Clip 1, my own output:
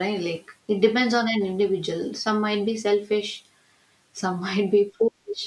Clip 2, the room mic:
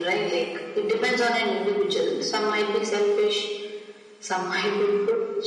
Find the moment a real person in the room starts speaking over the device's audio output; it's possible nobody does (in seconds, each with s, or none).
none